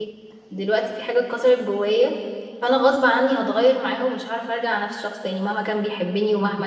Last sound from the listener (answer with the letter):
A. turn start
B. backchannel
B